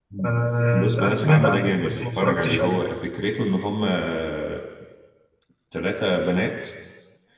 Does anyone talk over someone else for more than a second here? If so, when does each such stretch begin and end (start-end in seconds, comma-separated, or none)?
0.7-2.8